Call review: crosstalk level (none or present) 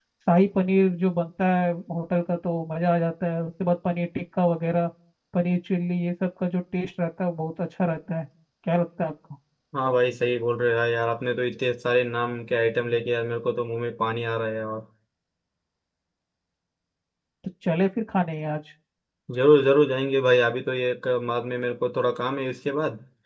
none